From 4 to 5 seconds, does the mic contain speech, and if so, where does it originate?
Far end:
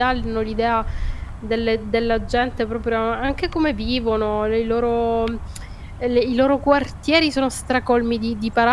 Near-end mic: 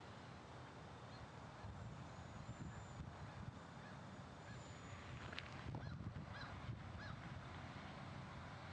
neither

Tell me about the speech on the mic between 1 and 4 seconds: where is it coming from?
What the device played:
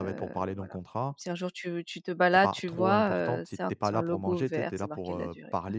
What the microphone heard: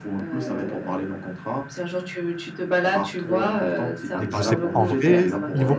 echo only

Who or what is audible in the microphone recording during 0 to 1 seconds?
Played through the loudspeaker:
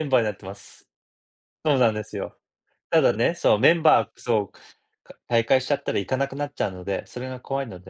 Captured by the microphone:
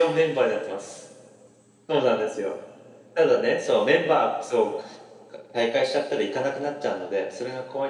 echo only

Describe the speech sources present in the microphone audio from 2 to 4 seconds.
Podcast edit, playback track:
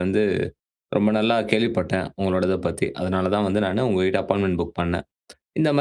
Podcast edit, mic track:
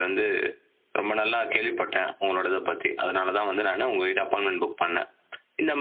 echo only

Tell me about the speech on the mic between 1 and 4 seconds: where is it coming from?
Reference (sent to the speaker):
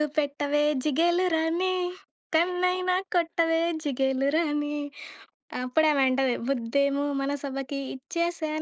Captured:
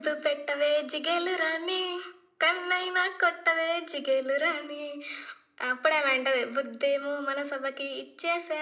echo only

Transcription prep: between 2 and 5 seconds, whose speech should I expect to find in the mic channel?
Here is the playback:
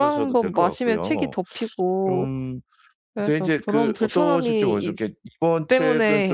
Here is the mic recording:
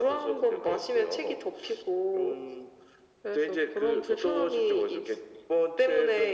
echo only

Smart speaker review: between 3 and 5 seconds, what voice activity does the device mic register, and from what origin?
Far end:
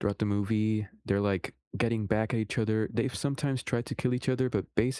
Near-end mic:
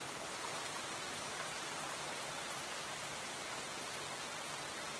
neither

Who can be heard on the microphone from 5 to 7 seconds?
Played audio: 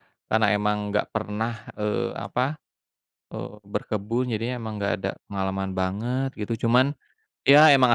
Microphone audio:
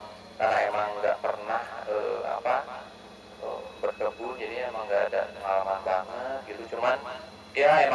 echo only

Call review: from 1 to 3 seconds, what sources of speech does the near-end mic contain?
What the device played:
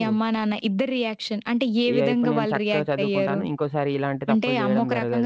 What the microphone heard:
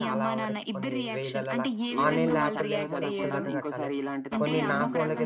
both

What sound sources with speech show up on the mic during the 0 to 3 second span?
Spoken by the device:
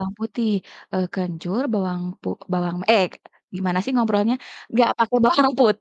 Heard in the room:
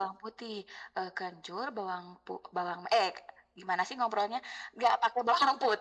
echo only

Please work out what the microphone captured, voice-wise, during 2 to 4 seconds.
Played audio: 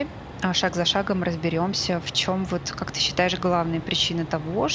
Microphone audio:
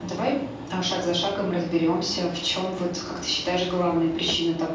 echo only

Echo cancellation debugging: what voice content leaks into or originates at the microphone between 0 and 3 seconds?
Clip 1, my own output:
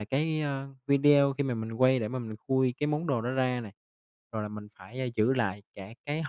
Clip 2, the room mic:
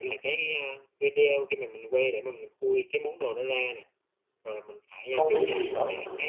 echo only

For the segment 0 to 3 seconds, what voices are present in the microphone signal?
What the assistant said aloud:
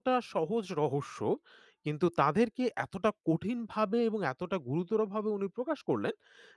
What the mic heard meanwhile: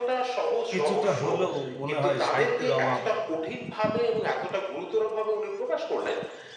both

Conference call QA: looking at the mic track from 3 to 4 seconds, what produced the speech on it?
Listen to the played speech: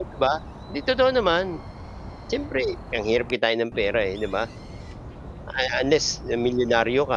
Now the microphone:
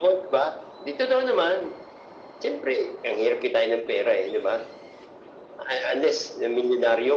echo only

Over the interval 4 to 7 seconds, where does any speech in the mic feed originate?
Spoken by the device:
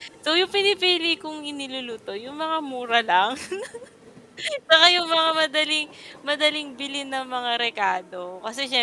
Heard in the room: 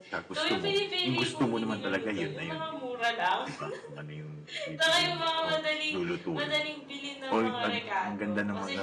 both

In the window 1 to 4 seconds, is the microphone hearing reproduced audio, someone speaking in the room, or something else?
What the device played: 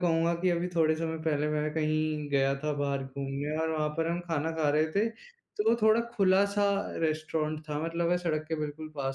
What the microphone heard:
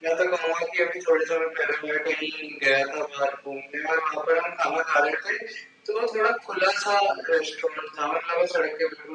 echo only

